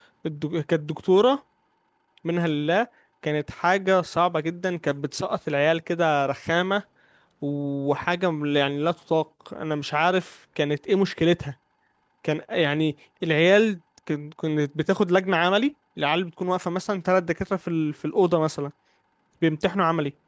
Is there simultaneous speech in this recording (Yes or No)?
No